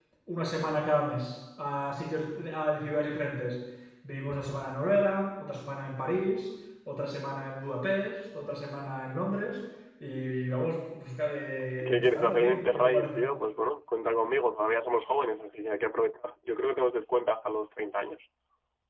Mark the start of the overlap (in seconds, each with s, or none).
11.8 s